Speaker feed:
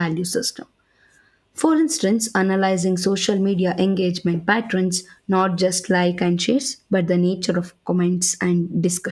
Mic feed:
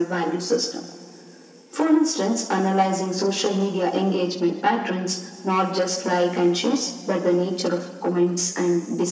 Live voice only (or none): none